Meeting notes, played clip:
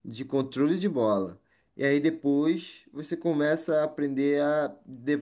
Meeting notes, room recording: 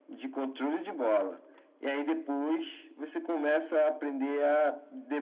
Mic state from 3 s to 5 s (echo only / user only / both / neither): echo only